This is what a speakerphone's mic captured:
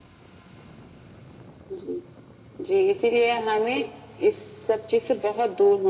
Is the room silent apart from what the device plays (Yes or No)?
Yes